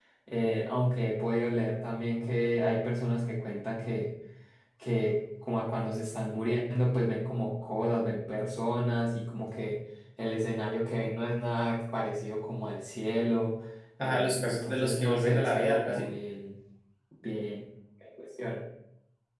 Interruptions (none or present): present